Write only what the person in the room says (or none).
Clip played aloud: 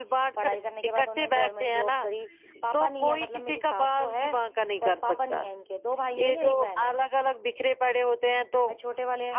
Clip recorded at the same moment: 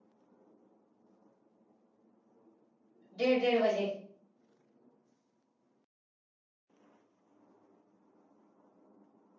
ڈیڑھ ڈیڑھ بجے